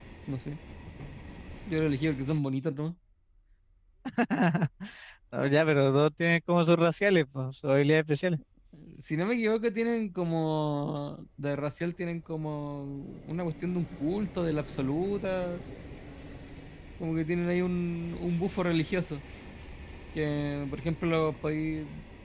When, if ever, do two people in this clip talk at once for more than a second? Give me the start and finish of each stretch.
none

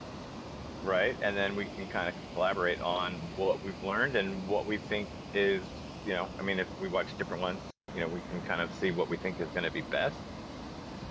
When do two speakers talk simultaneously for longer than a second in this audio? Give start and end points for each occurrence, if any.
none

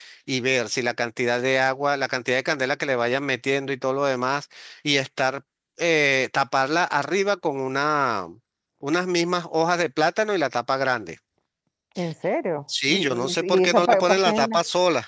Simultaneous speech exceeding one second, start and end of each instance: 12.9-14.4

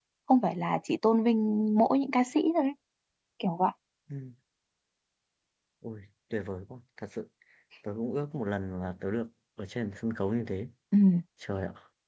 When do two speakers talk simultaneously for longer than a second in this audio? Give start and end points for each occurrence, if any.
none

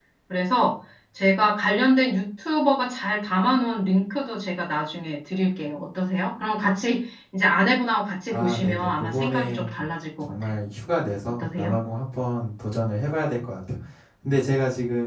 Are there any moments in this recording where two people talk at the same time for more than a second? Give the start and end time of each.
8.3-9.7

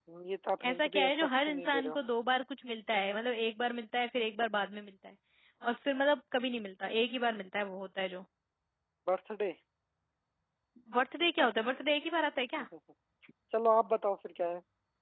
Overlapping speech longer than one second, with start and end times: 0.7-2.0

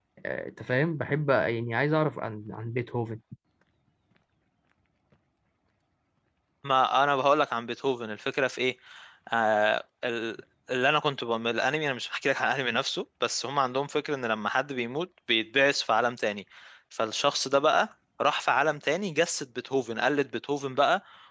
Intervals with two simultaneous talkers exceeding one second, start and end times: none

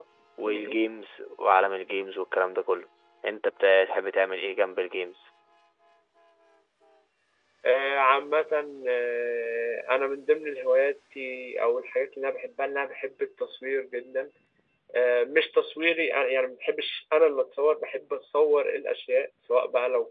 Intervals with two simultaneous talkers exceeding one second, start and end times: none

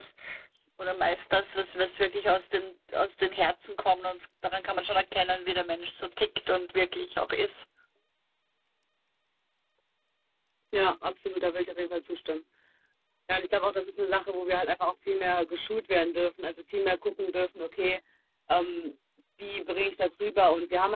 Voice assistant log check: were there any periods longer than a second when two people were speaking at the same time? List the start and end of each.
none

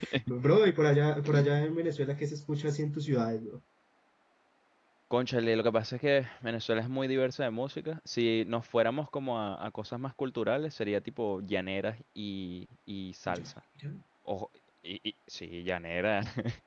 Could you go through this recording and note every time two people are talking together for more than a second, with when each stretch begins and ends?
none

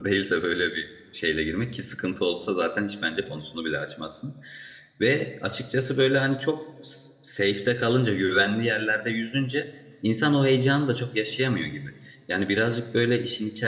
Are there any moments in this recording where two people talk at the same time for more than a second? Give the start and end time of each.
none

